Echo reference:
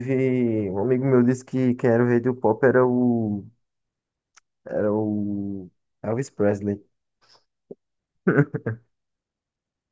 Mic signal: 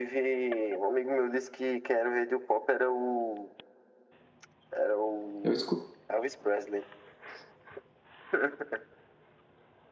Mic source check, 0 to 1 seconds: echo only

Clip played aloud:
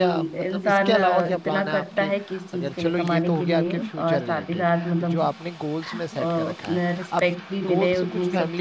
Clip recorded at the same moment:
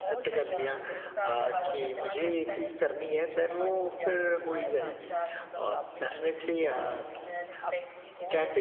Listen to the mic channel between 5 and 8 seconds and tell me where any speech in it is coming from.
both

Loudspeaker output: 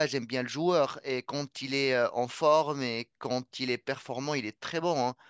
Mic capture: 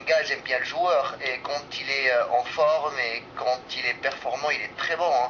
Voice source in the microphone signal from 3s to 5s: echo only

